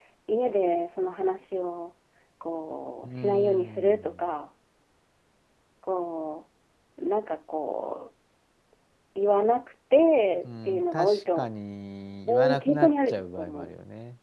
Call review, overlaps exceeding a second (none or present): present